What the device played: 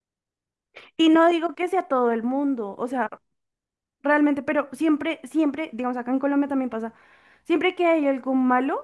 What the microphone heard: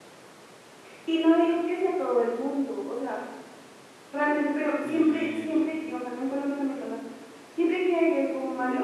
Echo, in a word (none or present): present